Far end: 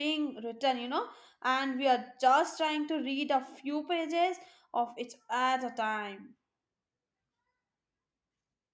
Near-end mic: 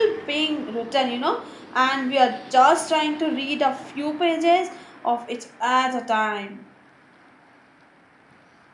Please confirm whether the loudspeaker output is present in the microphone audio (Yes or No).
Yes